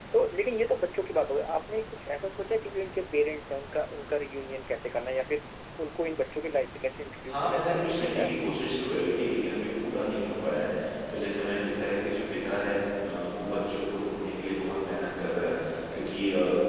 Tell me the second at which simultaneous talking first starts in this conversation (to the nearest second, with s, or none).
7 s